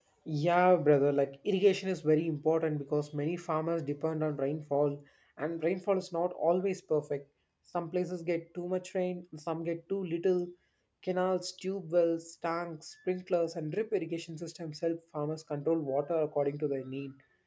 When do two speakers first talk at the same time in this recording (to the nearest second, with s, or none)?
none